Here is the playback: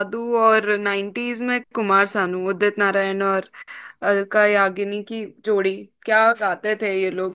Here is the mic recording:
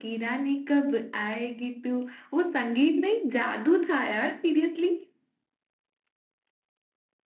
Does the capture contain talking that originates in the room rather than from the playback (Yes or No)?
Yes